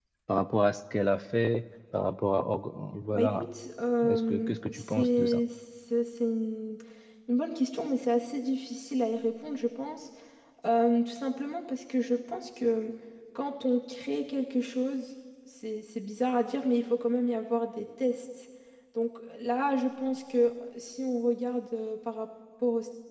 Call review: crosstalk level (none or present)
present